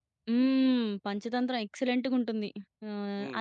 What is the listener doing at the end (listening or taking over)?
taking over